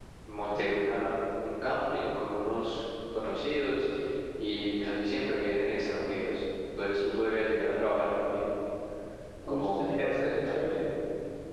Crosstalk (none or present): present